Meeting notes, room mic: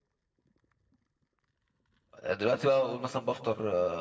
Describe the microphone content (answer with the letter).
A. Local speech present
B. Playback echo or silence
A